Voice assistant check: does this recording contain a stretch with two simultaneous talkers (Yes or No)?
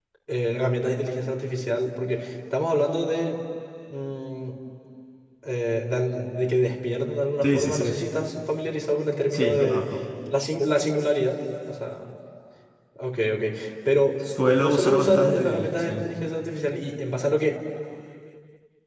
Yes